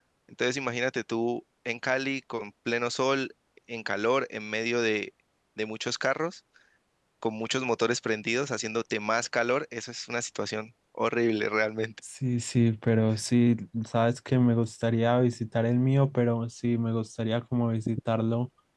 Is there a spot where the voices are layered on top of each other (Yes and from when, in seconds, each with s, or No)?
No